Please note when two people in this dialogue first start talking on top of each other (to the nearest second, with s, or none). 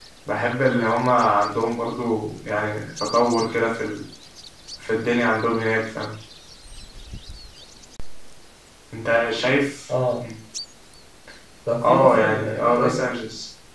12 s